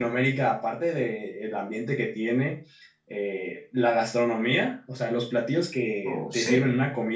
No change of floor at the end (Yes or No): Yes